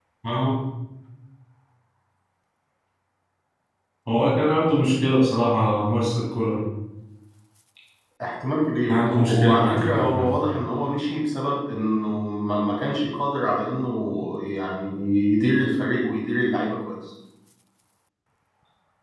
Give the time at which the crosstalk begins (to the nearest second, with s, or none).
9 s